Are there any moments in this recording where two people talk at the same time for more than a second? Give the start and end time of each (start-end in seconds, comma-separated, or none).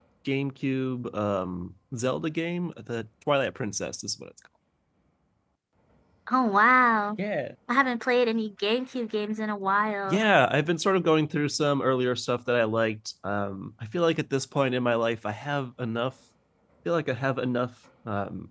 none